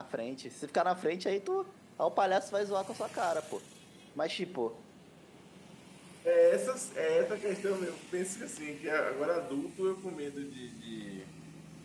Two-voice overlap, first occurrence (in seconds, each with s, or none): none